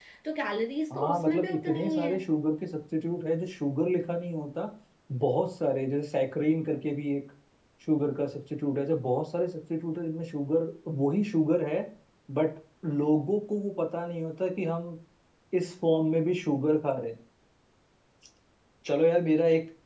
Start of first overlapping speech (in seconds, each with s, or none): 0.9 s